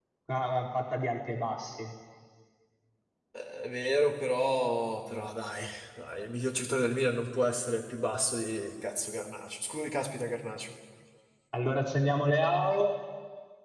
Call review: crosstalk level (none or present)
none